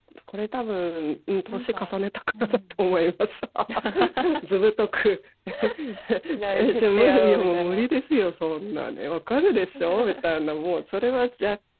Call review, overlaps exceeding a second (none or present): present